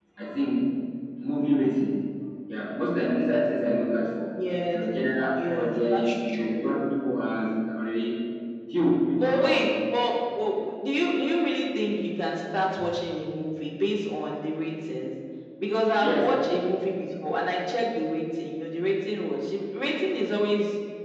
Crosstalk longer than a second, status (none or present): present